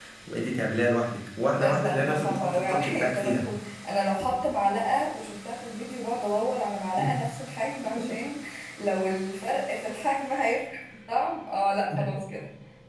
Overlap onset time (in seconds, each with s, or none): 1.6 s